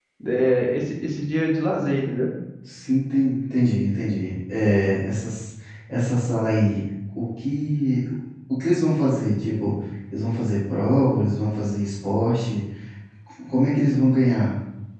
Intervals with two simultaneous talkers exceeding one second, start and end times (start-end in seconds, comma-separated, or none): none